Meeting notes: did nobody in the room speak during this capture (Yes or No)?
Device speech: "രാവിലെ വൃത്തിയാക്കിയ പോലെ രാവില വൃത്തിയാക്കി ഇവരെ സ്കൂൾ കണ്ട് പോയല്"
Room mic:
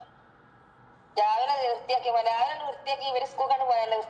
Yes